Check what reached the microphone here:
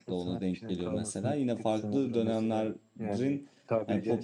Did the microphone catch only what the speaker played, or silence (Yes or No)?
No